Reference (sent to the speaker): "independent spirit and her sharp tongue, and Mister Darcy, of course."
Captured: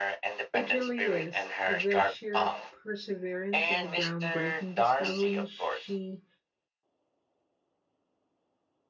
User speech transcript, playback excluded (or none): It really is. The sheer perseverance and the groundbreaking discoveries she